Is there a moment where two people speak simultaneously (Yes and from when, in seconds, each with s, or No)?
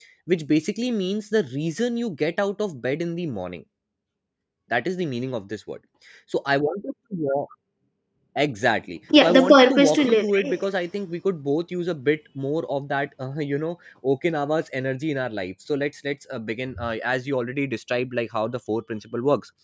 Yes, from 9.2 s